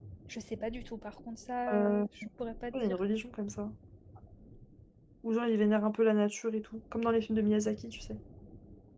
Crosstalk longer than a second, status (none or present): none